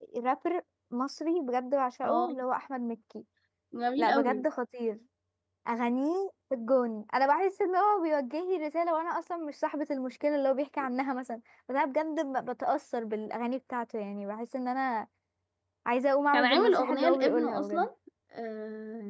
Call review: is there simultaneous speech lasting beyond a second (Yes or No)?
Yes